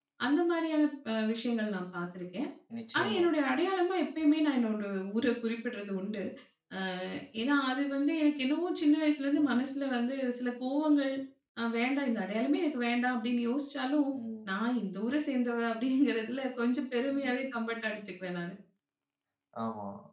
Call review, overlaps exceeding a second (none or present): none